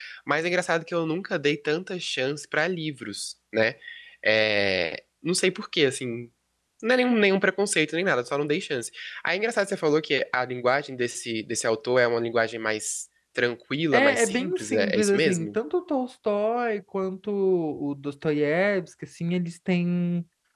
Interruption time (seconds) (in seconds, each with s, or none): 13.9 s